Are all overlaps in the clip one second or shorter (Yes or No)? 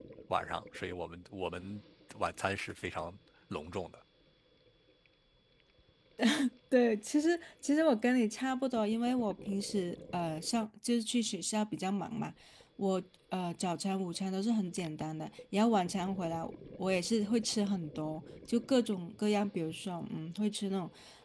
Yes